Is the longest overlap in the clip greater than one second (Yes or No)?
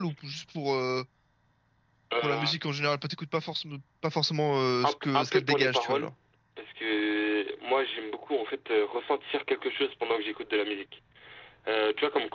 Yes